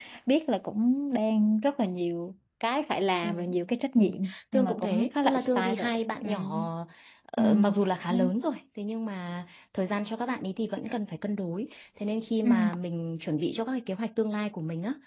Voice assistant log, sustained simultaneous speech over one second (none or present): present